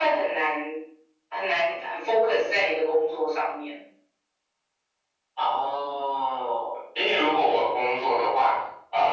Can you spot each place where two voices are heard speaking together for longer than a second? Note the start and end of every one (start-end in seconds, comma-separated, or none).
none